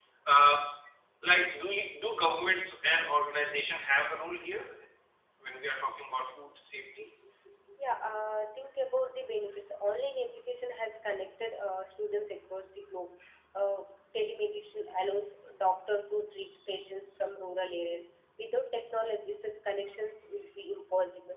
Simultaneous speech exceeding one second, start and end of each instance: none

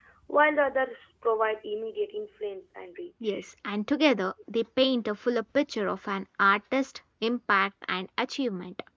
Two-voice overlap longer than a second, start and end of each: none

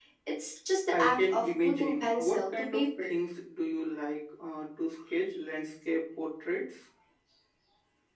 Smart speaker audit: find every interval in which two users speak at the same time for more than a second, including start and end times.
0.9-3.2

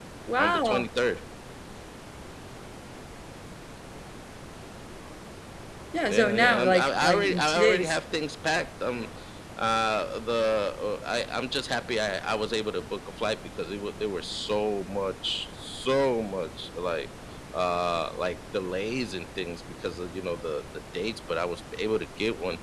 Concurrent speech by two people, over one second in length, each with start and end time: 6.1-8.0

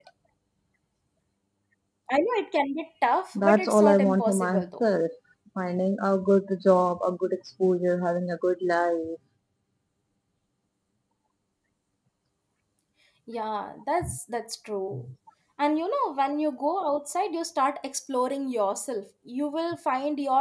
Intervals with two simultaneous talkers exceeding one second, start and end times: 3.4-4.8

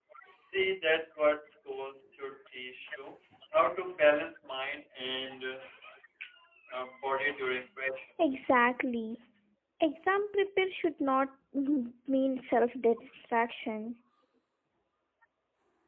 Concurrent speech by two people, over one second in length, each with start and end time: none

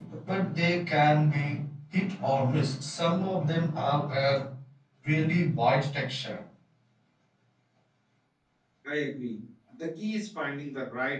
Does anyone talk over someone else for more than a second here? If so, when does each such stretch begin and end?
none

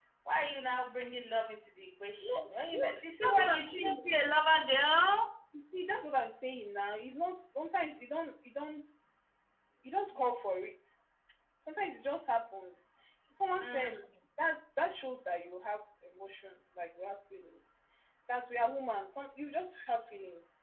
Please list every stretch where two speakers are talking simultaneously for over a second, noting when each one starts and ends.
2.2-4.0

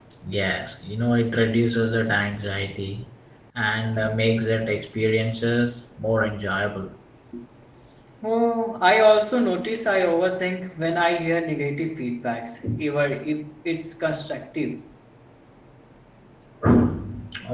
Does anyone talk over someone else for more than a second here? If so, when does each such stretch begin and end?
none

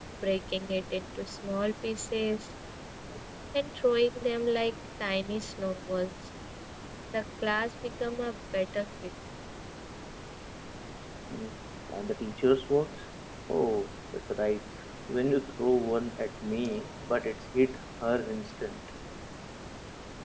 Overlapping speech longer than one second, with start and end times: none

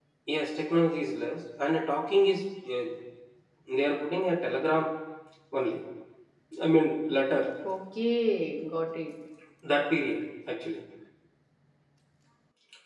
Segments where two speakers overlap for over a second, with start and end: none

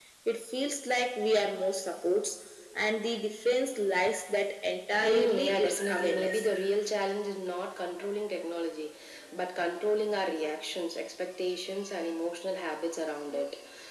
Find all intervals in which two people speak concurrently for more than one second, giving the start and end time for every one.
5.0-6.5

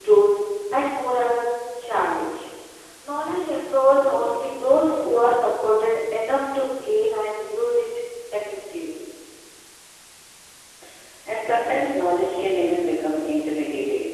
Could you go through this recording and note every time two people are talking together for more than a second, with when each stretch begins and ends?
none

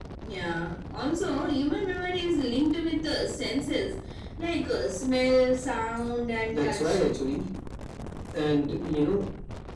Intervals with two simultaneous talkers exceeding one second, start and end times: none

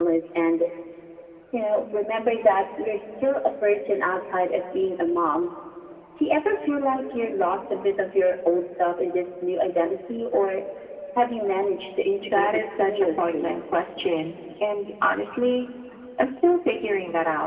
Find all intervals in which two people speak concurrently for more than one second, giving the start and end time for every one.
12.2-13.6

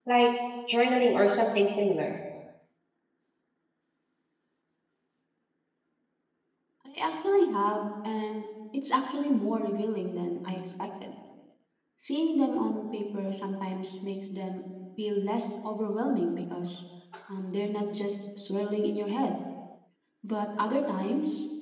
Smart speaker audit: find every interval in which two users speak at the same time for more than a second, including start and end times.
none

